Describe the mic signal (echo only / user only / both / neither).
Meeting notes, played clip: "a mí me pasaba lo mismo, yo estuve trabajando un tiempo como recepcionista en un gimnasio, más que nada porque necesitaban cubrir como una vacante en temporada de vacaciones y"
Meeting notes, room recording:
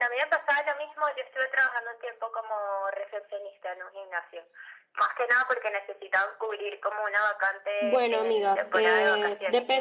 both